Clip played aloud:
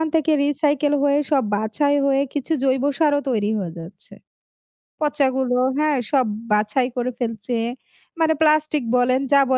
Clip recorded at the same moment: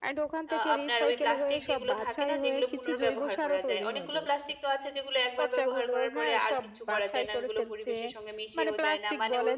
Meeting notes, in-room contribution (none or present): present